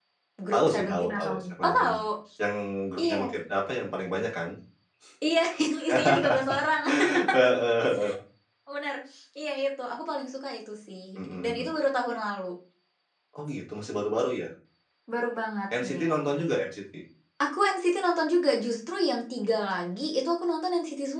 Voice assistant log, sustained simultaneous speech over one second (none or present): present